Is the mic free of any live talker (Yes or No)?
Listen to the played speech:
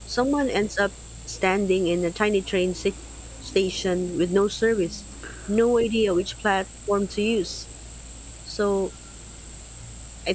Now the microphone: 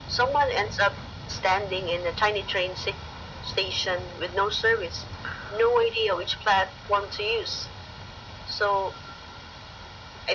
Yes